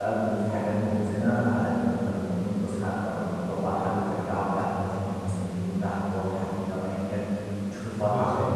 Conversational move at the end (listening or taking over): listening